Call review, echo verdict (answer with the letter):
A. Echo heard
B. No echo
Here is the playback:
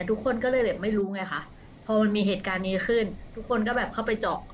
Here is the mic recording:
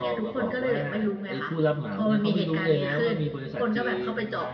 A